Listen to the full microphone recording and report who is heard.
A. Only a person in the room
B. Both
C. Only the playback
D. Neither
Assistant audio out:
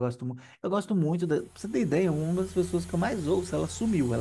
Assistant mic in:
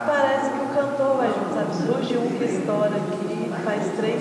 B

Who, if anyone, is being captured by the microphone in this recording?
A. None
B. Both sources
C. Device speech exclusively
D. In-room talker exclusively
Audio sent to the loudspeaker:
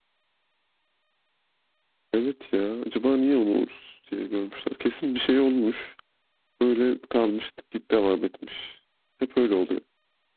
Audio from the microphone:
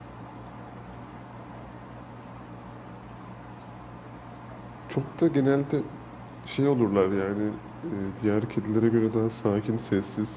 D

